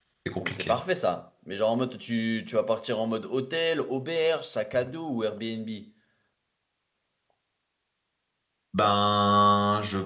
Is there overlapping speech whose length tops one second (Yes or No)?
No